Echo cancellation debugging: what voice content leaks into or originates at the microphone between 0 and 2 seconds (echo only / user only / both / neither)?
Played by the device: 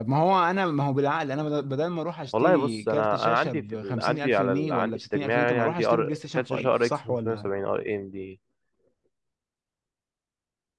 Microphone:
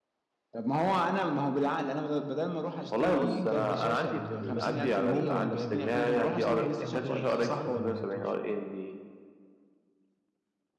echo only